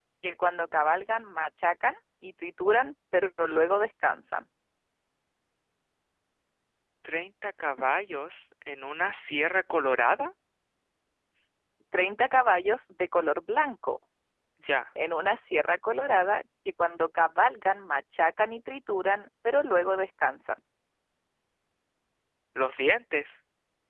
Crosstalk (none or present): none